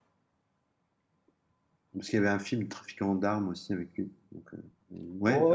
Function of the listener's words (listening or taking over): taking over